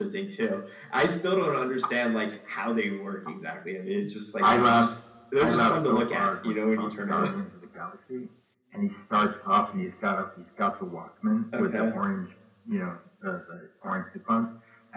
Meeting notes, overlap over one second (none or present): present